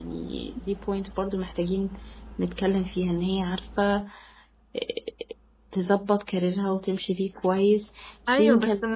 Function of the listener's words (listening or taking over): taking over